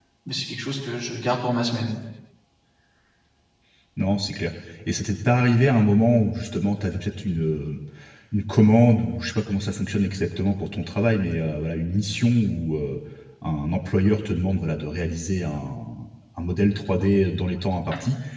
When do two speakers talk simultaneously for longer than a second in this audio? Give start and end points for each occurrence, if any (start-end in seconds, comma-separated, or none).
none